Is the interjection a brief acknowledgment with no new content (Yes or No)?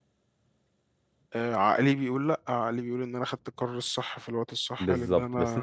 No